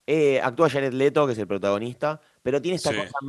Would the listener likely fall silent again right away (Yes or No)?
Yes